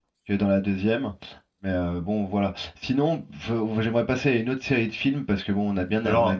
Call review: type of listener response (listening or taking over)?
listening